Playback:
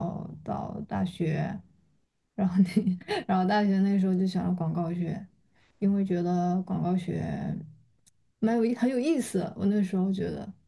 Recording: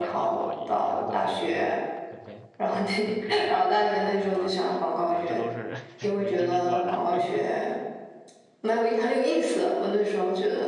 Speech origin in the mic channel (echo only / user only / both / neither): both